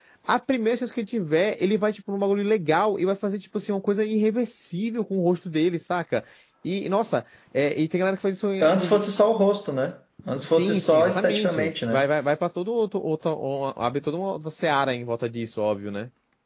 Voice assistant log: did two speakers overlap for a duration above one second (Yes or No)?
Yes